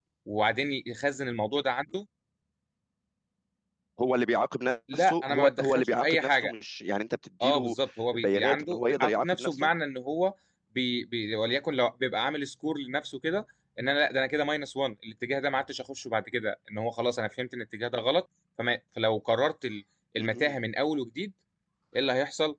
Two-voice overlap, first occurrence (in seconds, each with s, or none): 4.9 s